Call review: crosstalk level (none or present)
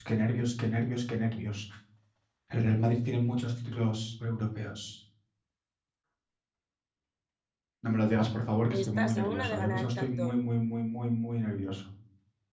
present